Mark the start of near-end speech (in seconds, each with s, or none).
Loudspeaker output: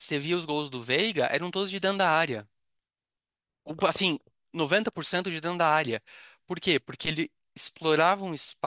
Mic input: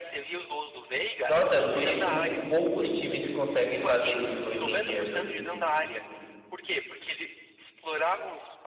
1.3 s